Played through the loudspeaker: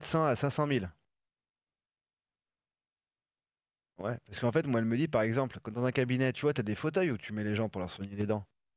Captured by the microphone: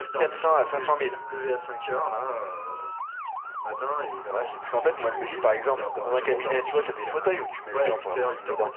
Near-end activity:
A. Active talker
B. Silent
A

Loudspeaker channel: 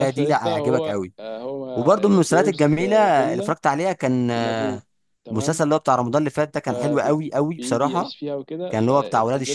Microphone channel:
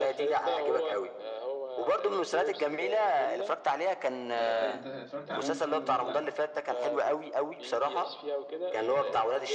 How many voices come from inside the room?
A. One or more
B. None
A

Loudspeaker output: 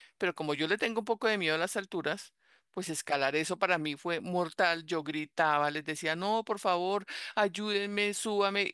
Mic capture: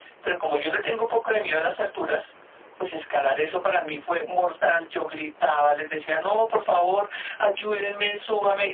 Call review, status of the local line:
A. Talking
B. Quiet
B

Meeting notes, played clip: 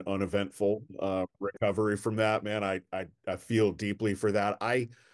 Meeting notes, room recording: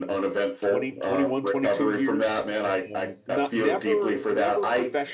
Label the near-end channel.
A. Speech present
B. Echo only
A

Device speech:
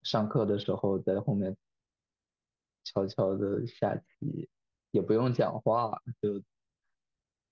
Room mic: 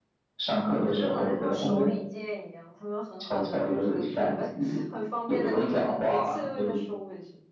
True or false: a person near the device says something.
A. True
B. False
A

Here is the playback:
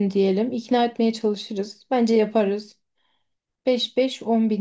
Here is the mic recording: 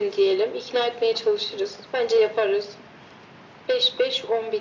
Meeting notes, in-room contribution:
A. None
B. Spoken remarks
A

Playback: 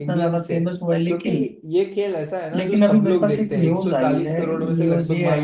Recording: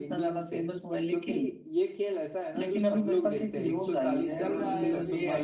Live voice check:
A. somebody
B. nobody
A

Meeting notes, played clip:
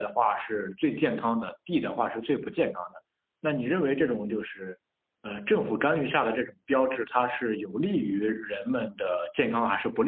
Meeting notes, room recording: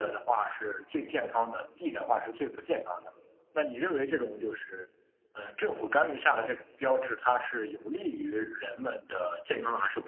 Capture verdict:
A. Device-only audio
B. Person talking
A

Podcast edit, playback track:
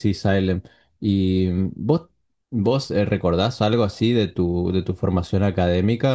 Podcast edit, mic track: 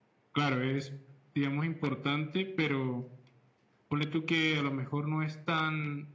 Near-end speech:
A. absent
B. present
B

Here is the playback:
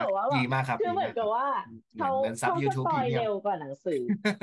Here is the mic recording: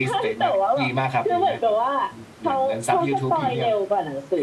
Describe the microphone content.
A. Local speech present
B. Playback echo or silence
B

